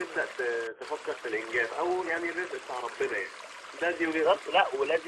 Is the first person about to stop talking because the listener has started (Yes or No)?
Yes